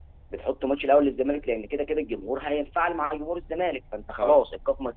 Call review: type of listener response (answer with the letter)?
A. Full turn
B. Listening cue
B